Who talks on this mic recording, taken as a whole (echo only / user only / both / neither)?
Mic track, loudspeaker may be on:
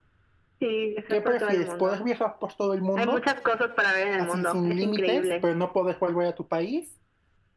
both